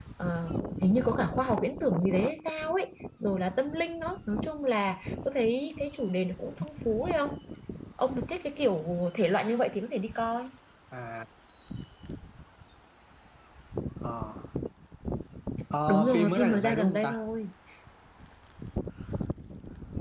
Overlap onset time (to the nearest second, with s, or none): 16 s